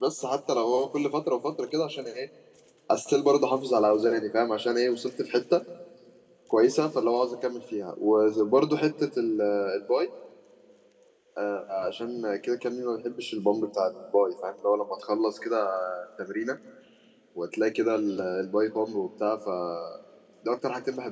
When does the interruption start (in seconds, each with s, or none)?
none